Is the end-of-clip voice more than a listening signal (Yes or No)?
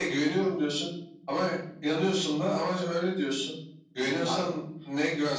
No